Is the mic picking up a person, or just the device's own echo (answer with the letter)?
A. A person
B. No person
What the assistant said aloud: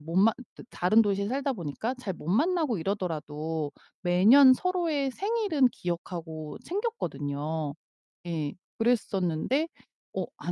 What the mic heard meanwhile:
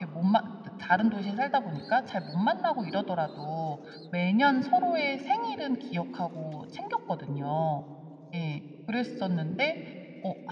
B